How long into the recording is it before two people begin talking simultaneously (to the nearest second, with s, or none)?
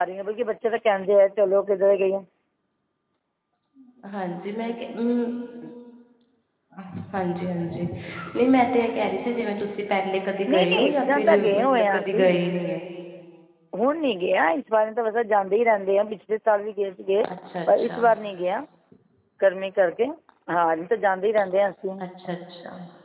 10 s